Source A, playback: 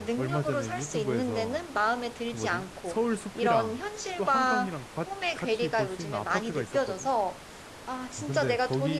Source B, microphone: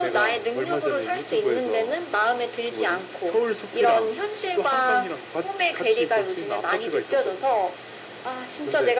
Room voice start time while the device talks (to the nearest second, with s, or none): none